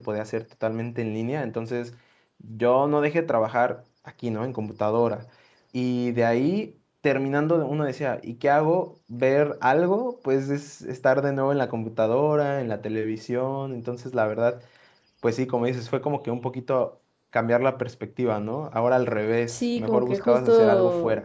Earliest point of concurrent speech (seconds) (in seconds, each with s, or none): 19.5 s